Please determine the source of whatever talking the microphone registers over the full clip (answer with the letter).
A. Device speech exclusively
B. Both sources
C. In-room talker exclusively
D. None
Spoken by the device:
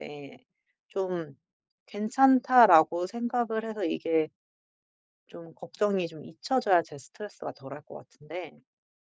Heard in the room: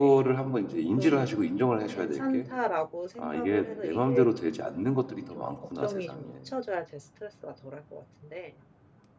B